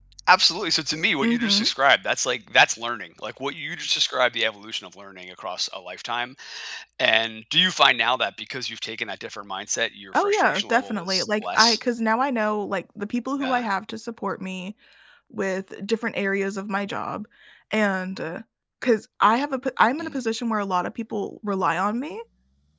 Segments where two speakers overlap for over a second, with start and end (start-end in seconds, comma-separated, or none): 10.1-11.8